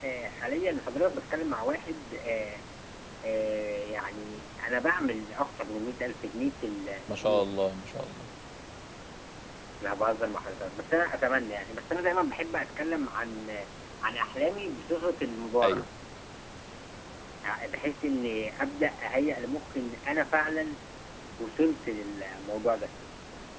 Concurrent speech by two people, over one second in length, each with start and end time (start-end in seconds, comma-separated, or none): none